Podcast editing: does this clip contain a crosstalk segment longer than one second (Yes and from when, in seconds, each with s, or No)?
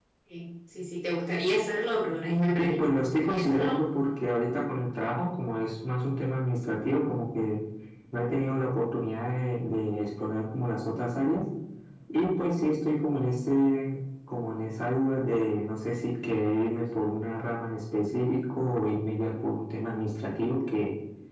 Yes, from 2.6 s